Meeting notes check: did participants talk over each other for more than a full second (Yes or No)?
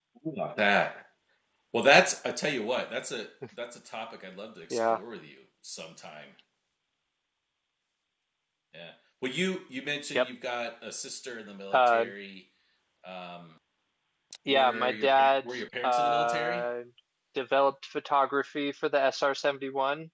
Yes